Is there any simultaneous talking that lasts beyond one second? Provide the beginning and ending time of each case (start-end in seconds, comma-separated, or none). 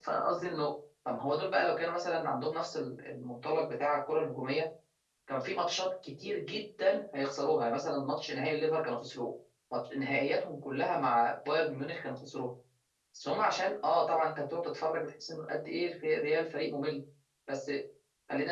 none